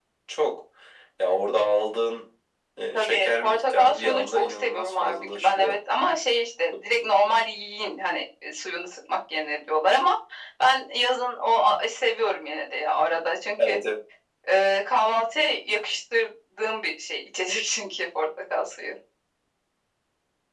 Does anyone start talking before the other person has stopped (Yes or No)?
Yes